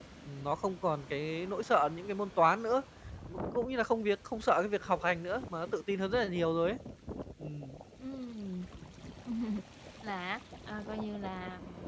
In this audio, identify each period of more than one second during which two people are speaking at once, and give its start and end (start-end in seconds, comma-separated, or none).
none